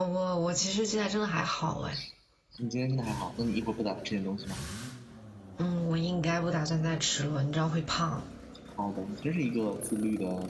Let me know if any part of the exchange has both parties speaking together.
No

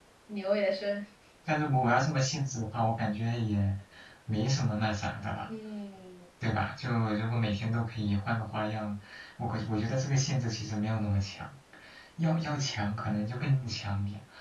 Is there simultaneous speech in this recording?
No

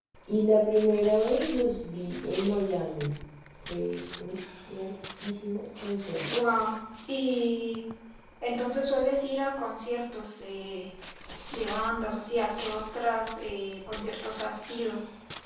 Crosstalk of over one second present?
No

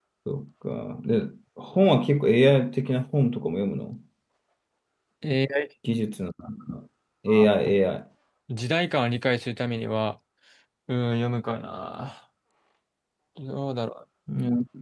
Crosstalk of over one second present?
No

